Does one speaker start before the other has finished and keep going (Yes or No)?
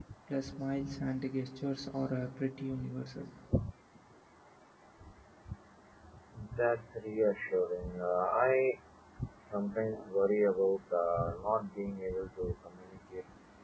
No